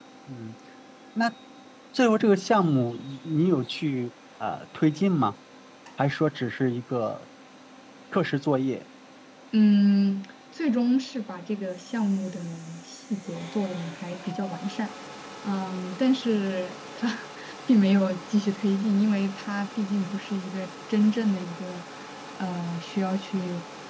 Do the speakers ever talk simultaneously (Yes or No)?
No